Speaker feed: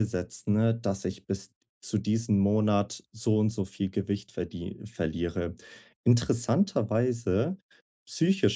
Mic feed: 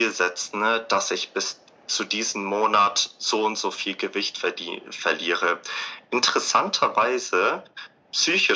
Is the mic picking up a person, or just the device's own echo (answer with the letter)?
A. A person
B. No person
B